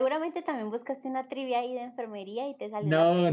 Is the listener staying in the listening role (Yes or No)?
No